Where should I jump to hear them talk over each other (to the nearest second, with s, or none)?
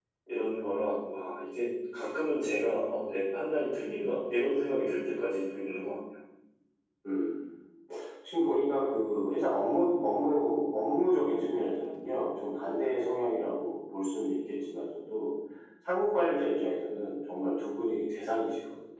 none